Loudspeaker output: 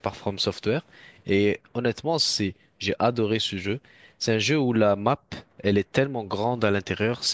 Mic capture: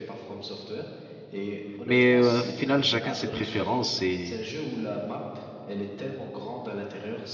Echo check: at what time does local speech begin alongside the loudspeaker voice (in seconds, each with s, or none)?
1.8 s